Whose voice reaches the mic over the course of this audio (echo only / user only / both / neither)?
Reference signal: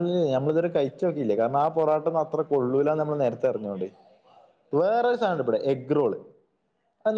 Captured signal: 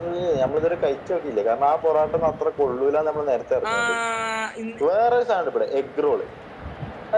both